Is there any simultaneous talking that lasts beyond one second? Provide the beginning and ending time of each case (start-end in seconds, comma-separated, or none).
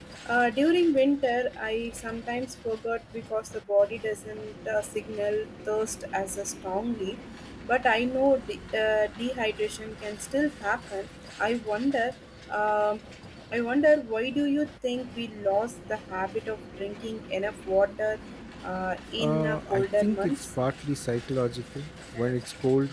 19.2-20.4